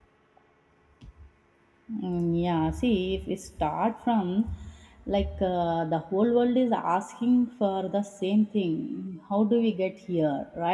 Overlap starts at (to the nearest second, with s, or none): none